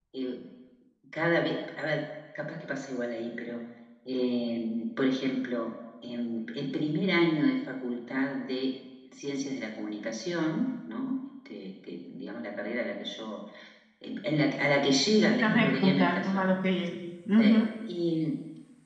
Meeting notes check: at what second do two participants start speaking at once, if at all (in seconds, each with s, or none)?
15.3 s